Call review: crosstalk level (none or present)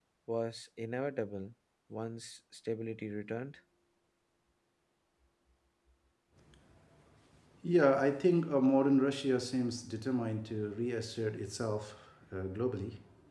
none